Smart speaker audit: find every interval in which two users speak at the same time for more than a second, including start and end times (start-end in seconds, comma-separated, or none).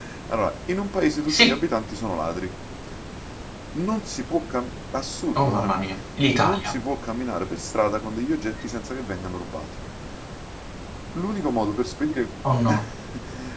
none